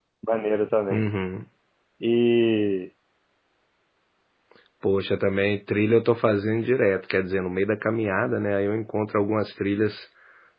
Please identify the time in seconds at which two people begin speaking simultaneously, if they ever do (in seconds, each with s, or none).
none